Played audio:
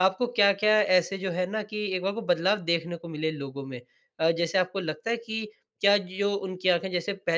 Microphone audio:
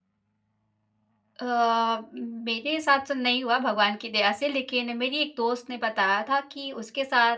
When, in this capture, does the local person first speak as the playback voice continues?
1.4 s

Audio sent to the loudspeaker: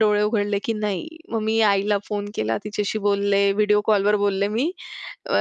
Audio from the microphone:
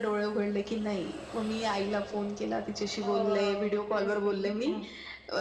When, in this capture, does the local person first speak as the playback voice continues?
3.0 s

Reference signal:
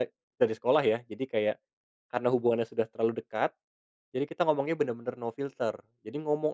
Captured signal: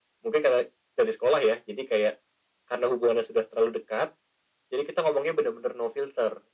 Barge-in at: none

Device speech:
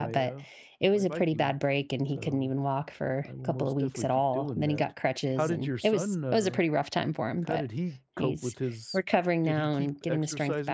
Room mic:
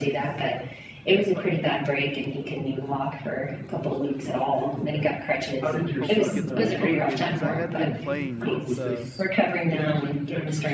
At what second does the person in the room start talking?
6.0 s

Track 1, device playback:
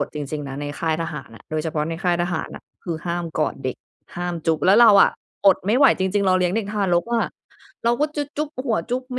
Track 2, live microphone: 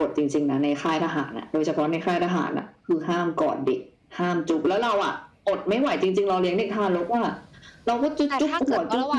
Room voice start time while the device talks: 8.3 s

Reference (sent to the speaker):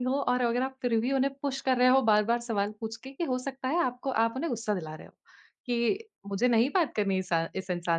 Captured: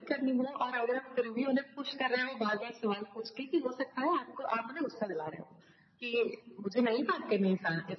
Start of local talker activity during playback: none

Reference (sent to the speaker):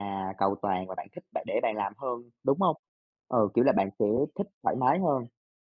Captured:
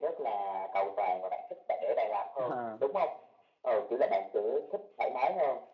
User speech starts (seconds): 2.4 s

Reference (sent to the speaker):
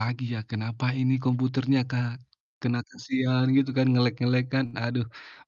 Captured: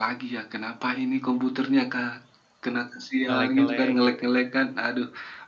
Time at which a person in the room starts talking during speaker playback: 3.2 s

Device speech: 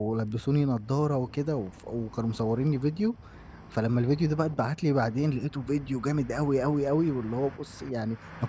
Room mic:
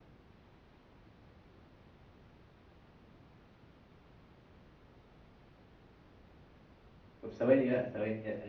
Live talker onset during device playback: 7.2 s

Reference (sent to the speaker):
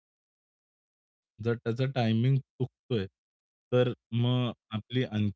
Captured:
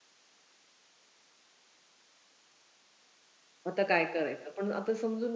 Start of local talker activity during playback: 3.7 s

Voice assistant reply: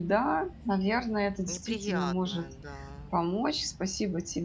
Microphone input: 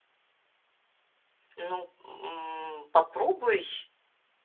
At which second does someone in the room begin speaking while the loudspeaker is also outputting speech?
1.5 s

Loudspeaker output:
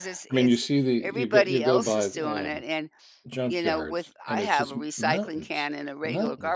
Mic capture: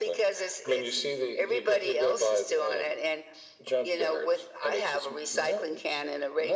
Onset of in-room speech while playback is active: none

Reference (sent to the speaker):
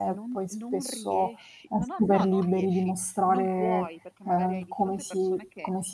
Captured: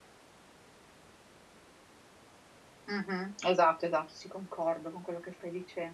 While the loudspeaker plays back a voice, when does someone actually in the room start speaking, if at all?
2.9 s

